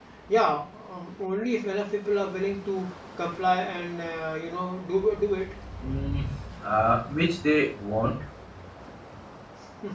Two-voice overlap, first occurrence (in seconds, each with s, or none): none